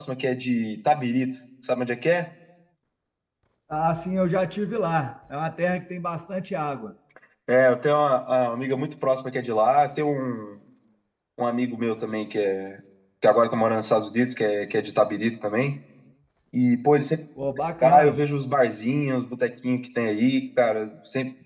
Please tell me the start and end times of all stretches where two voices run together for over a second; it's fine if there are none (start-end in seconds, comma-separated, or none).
none